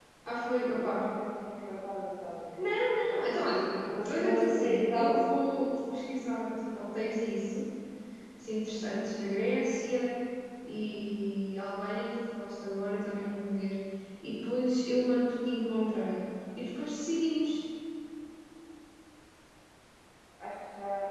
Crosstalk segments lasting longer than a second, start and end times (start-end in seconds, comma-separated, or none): 3.7-5.3